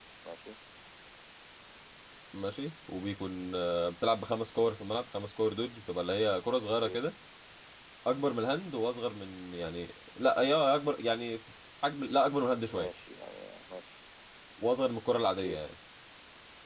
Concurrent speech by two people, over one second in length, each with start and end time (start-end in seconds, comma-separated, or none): none